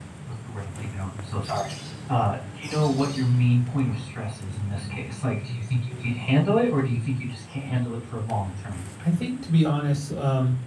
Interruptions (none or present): none